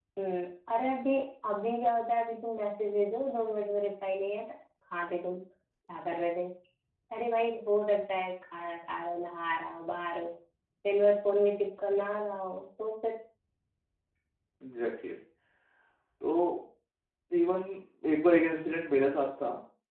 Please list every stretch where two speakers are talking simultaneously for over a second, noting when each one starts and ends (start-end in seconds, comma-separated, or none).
none